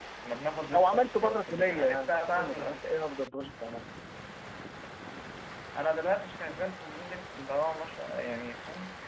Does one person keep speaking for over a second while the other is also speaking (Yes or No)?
Yes